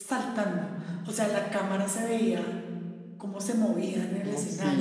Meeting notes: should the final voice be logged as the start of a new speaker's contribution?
No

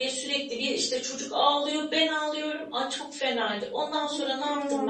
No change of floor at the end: No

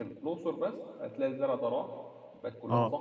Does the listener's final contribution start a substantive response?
No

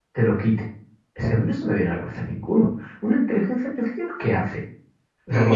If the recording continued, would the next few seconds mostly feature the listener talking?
Yes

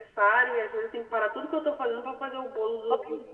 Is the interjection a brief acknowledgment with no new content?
No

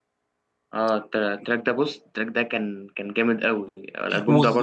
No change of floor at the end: No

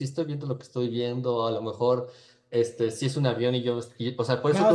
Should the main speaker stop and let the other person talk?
Yes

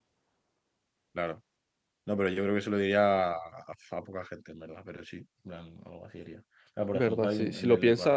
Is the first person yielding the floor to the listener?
Yes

